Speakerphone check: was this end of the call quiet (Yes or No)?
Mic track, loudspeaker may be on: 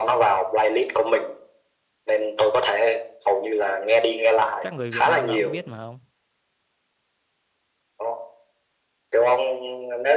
No